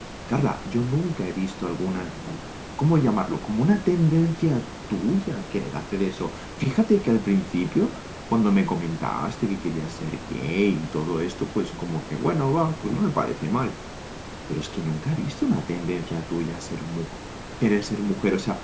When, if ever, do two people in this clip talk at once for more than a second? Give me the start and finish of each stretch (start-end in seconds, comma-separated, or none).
none